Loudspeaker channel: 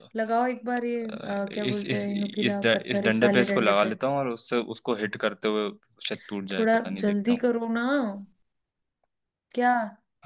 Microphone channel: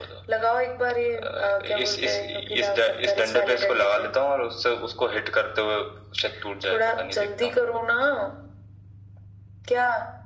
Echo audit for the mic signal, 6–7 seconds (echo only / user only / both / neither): echo only